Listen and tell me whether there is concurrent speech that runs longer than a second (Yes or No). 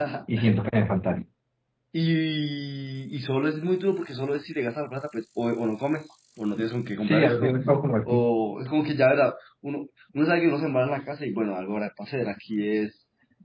No